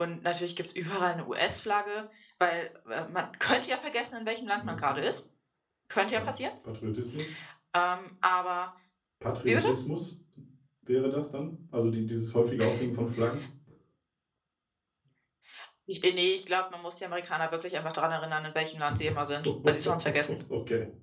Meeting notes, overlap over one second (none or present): none